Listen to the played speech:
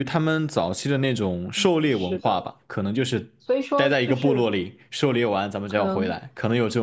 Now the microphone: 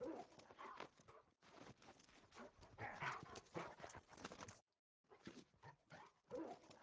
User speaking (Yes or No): No